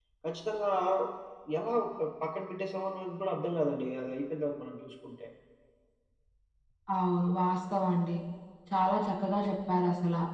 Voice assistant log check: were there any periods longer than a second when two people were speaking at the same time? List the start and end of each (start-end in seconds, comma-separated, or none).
none